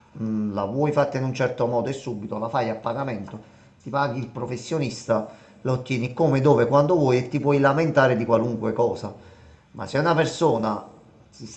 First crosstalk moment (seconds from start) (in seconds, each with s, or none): none